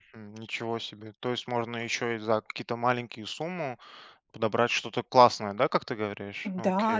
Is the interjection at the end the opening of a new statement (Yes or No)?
Yes